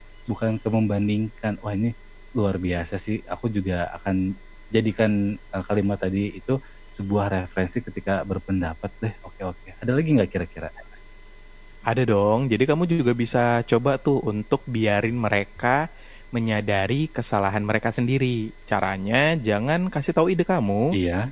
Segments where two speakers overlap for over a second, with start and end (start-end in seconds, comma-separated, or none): none